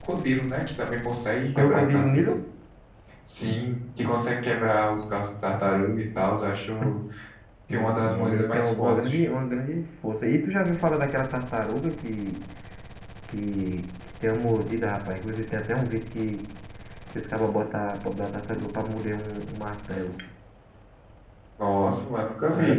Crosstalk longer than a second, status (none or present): present